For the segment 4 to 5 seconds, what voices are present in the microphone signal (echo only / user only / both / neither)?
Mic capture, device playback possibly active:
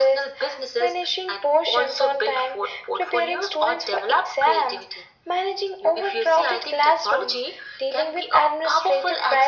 echo only